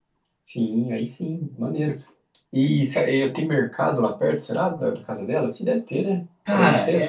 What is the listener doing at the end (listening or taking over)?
taking over